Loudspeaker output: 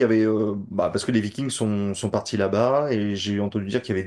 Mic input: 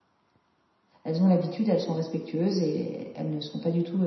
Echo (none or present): none